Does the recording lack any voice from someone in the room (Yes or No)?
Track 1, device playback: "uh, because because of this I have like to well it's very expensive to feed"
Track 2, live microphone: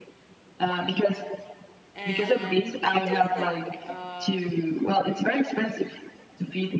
No